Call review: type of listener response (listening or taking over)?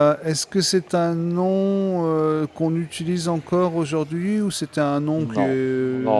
taking over